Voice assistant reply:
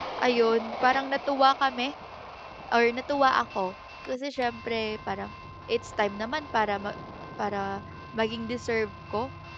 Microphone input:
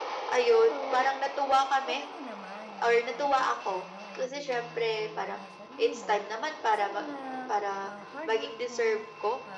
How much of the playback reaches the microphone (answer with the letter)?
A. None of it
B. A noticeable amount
B